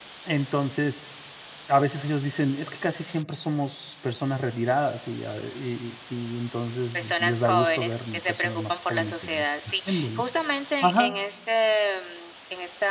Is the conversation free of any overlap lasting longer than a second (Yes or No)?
No